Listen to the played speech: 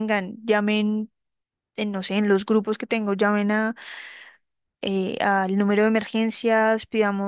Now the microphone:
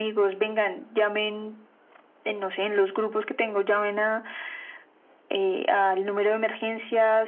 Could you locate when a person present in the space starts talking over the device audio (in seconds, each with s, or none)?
none